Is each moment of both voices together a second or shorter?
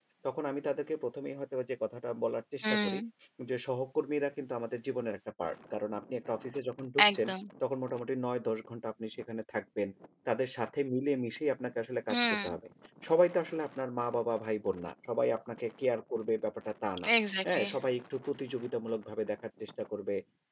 Yes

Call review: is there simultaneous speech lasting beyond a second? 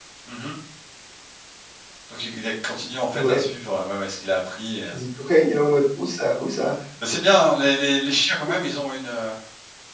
No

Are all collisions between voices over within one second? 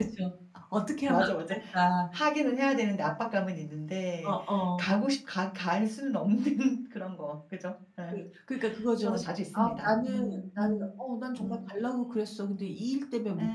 No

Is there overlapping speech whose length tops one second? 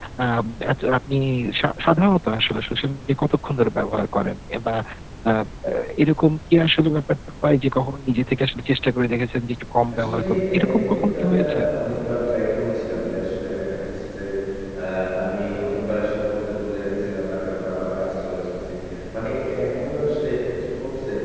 Yes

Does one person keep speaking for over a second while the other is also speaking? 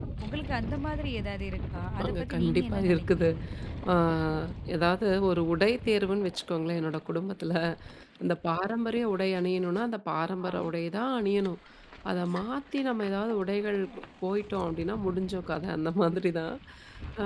Yes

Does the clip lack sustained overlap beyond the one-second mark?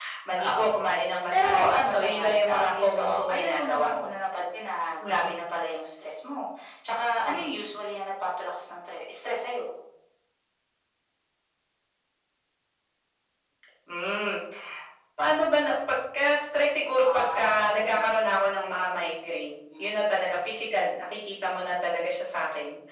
No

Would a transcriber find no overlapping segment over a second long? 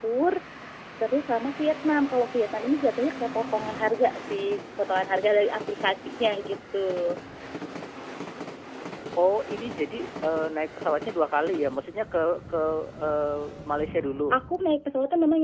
Yes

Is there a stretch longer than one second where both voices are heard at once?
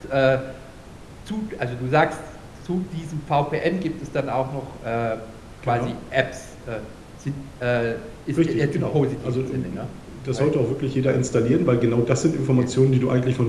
Yes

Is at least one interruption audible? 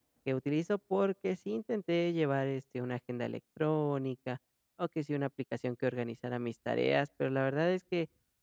No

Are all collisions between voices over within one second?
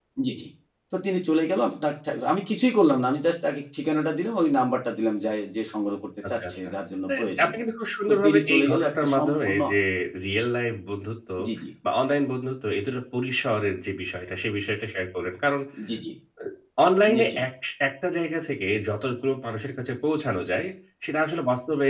No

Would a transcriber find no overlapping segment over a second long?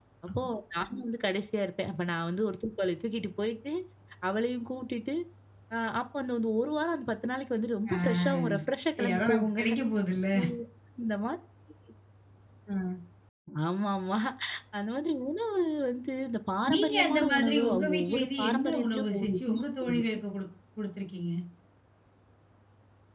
No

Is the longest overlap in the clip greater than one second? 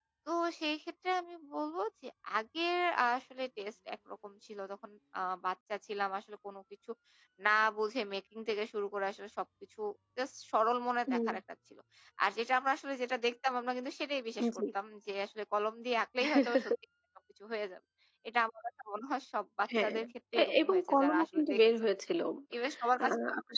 Yes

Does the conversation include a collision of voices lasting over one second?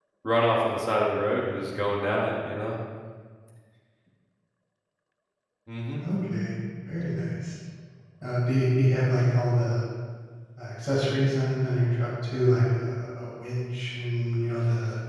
No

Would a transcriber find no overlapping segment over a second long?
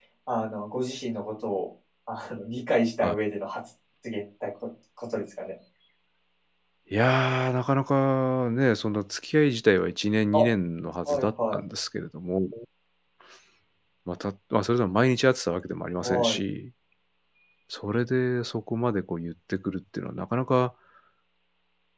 Yes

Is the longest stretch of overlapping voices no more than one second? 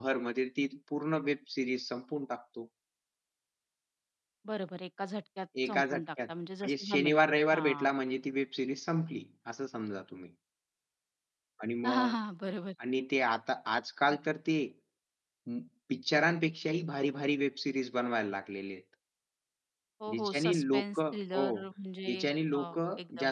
No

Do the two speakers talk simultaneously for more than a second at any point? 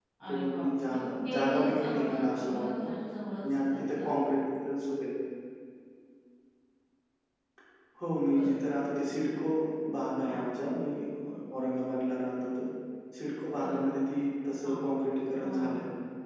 Yes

